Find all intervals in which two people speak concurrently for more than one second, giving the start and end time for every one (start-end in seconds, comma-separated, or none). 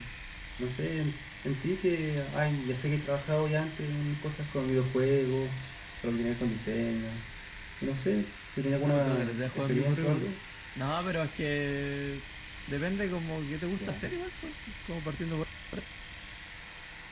8.8-10.3